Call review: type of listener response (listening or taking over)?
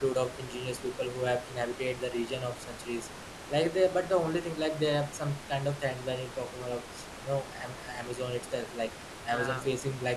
listening